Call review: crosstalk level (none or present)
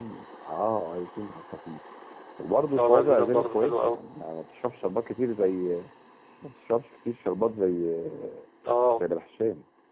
present